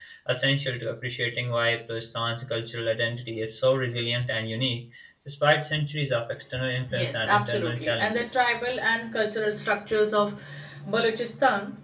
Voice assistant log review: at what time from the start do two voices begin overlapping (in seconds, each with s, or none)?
6.9 s